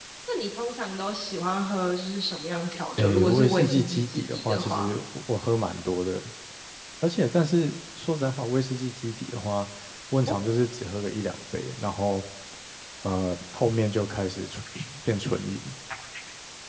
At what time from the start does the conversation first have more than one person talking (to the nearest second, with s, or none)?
3 s